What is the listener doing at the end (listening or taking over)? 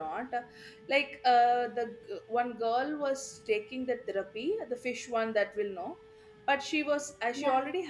listening